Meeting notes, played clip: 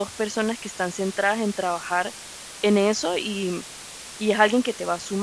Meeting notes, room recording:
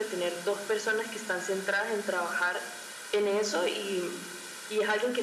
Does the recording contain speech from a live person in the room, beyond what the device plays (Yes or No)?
No